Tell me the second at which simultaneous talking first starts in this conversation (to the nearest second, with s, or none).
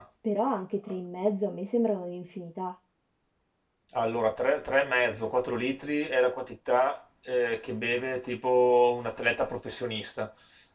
none